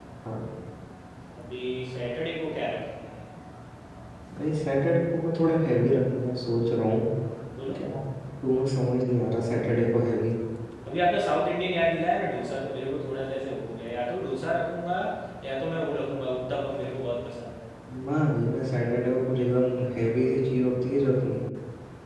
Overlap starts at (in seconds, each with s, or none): none